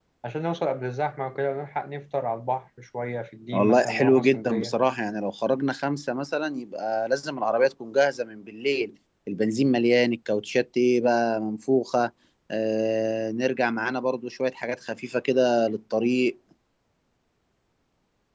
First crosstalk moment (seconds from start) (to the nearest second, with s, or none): 4 s